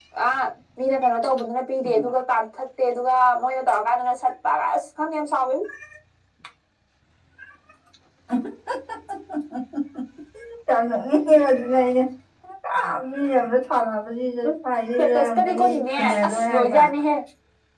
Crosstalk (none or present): present